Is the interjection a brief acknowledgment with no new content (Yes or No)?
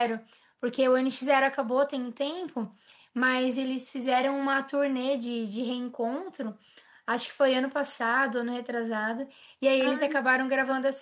Yes